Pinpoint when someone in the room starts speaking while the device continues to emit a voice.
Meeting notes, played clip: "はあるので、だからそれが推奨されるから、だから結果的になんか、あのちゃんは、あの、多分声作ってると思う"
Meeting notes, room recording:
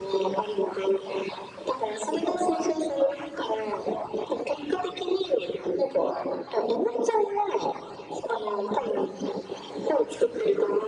none

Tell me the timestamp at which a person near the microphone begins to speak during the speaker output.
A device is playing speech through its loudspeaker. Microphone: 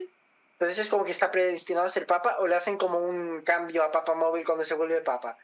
none

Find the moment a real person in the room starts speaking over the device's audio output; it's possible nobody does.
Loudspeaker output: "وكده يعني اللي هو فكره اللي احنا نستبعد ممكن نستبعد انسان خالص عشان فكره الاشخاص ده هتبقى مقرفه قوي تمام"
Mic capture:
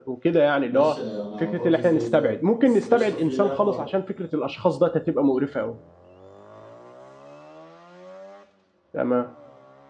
0.6 s

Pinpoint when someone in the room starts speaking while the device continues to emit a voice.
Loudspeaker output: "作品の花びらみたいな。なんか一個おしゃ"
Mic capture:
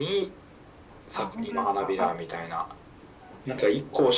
1.1 s

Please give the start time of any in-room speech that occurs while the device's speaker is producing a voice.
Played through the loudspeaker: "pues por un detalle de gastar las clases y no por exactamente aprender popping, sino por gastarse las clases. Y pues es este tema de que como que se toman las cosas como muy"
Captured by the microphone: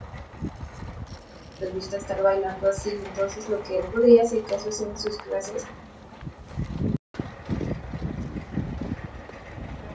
1.6 s

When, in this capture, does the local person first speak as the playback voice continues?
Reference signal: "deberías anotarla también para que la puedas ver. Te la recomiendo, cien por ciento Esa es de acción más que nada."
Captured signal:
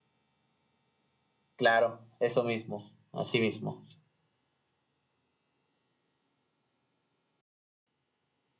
1.6 s

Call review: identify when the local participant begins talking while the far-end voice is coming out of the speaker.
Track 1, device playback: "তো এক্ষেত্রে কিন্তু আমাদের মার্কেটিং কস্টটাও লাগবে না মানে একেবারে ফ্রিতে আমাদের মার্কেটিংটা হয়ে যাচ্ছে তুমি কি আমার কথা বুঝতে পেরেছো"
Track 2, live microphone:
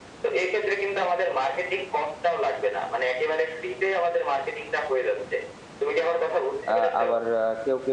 6.7 s

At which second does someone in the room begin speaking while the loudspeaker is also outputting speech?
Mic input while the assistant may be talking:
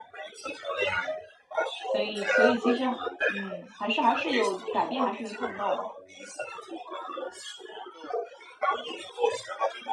1.9 s

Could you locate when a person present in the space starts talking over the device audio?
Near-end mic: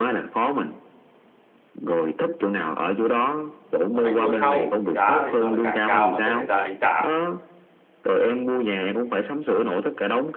3.9 s

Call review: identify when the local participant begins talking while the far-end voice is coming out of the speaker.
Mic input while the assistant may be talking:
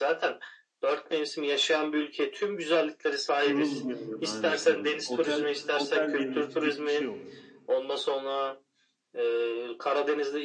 3.4 s

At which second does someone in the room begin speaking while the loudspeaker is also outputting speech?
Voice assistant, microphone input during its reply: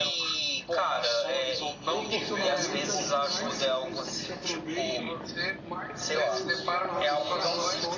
1.9 s

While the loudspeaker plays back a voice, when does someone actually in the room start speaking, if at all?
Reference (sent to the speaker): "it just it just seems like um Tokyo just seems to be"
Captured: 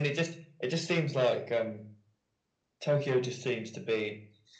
none

